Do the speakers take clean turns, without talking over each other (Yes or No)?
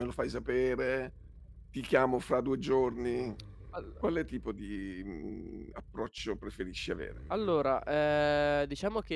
Yes